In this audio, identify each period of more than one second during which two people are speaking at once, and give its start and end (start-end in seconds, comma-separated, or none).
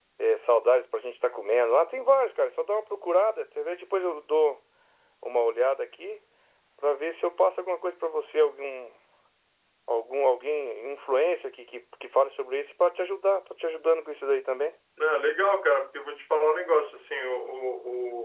none